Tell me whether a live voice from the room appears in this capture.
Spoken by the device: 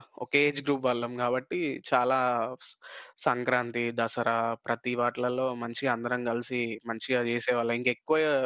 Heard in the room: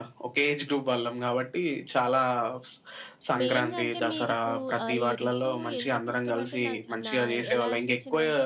Yes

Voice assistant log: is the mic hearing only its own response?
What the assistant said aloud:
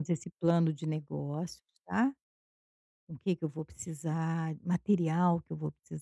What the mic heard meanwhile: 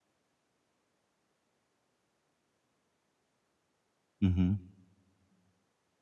No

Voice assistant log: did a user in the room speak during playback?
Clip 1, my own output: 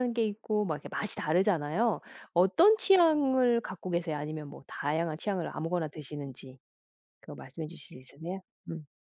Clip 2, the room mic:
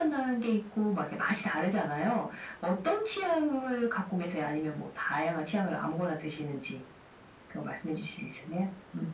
No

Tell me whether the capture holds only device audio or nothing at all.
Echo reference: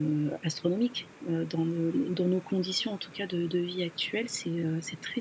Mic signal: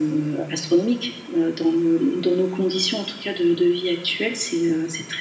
Yes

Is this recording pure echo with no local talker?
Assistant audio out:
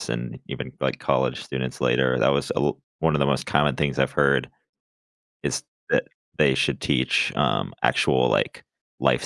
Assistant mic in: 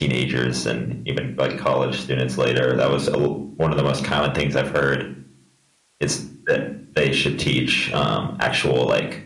Yes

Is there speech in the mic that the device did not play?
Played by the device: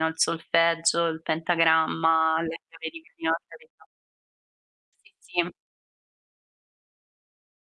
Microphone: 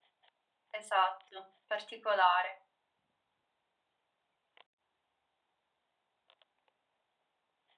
Yes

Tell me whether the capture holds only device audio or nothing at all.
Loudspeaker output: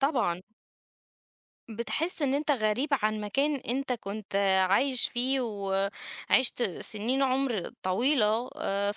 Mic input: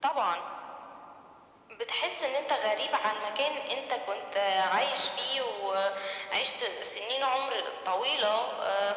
Yes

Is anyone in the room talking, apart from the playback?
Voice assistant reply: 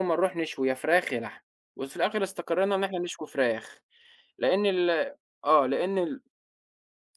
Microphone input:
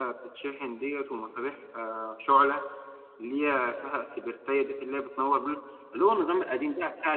Yes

